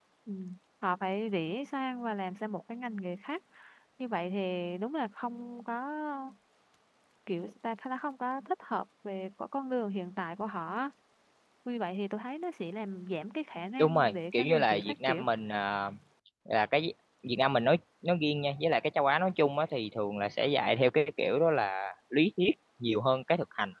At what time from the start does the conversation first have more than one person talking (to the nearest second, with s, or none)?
14 s